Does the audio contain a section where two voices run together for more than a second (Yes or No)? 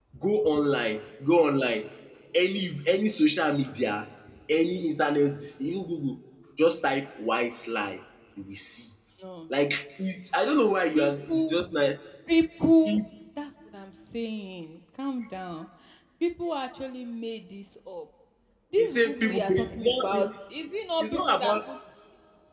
Yes